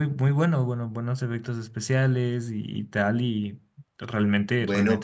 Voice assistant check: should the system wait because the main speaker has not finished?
No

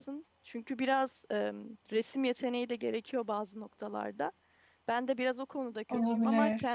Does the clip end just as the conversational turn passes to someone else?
No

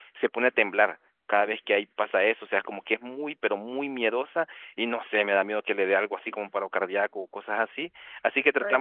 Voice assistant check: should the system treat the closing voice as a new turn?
No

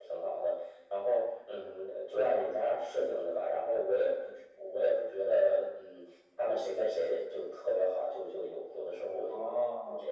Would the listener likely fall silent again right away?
No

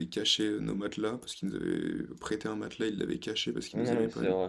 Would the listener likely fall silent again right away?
No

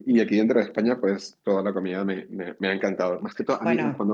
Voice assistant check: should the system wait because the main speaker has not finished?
Yes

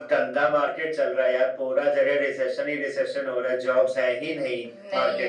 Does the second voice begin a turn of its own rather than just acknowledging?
No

